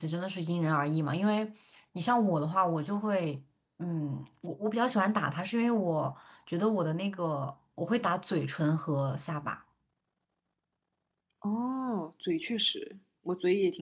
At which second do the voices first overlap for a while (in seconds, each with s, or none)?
none